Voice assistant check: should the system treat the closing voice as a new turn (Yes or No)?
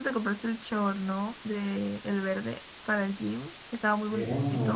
Yes